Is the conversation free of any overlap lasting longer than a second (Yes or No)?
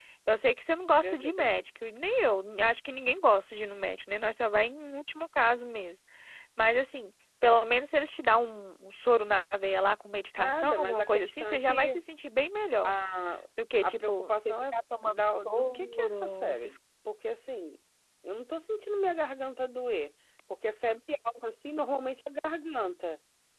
No